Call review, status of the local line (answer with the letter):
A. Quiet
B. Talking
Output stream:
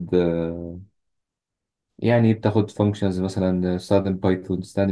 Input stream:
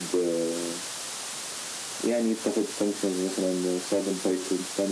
A